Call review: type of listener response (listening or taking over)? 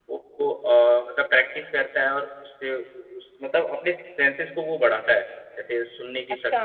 taking over